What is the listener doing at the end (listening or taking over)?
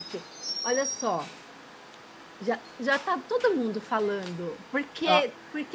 listening